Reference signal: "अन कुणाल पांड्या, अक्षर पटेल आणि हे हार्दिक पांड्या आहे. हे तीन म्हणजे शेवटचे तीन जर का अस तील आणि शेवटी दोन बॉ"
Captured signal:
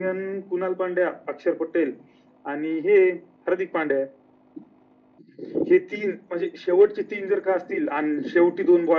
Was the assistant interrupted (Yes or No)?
No